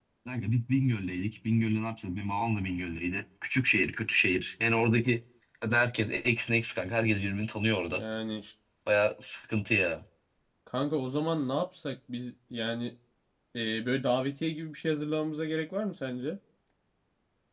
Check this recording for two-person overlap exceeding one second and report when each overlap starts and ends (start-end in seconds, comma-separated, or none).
none